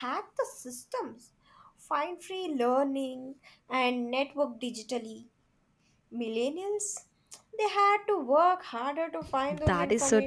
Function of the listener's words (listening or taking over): taking over